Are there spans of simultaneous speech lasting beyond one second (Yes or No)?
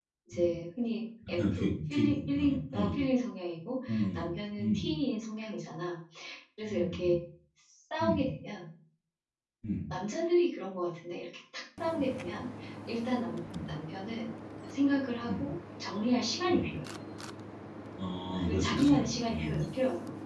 Yes